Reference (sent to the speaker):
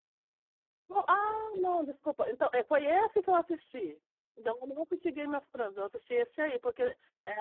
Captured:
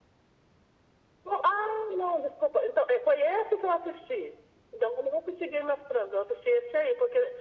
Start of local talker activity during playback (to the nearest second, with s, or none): none